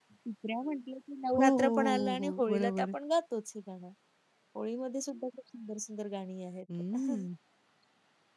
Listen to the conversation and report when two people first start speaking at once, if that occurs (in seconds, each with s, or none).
1.3 s